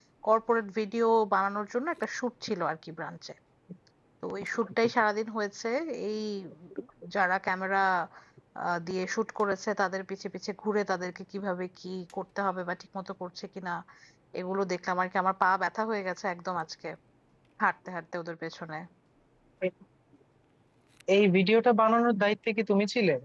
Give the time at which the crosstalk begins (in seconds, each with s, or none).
none